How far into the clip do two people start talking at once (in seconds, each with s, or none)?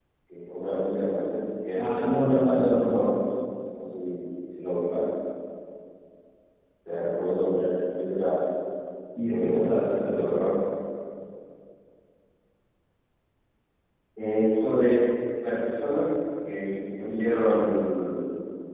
1.8 s